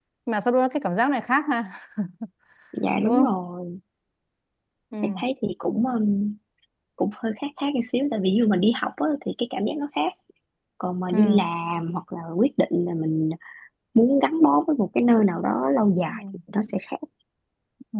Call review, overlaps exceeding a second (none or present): none